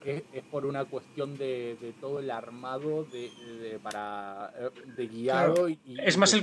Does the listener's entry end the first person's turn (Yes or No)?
Yes